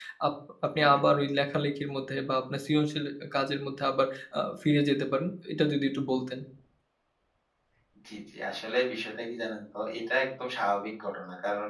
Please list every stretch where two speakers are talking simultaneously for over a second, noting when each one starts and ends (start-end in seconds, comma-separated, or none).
none